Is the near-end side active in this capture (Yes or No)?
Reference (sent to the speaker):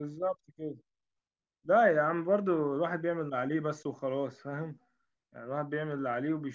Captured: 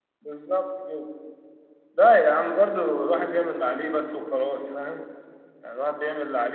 No